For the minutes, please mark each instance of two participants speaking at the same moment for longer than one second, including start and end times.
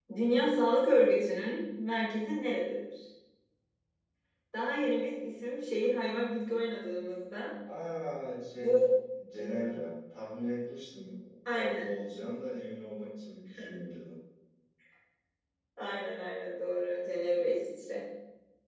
none

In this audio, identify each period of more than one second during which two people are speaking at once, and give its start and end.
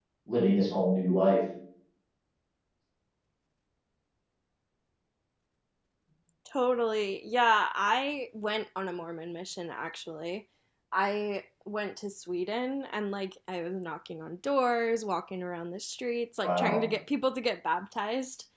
none

